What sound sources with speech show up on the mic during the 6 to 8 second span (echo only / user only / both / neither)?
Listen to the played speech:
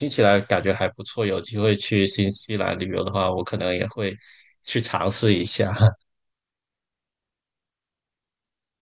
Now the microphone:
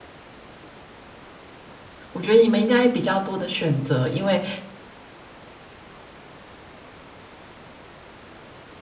neither